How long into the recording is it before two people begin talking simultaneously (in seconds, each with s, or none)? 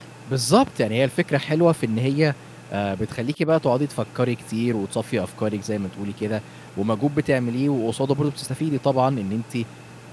none